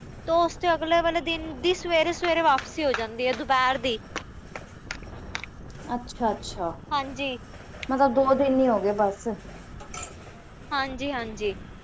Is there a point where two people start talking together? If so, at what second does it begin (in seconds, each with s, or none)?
none